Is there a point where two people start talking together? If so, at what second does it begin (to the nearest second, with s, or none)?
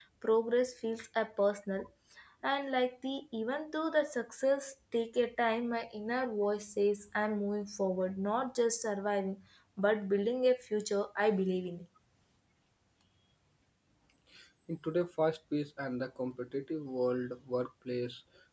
none